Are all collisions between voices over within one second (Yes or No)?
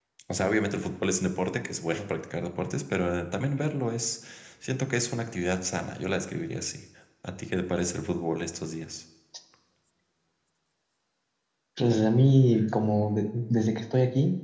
Yes